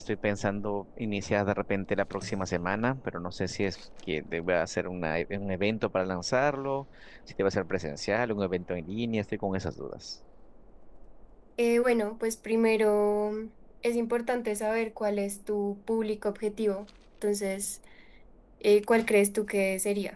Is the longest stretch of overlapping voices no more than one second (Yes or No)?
Yes